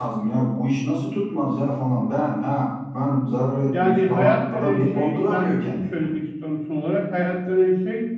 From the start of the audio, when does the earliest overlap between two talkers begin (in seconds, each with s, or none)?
3.7 s